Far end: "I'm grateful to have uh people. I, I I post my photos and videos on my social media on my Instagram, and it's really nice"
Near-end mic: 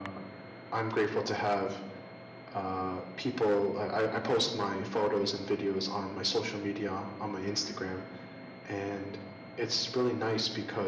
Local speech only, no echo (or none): none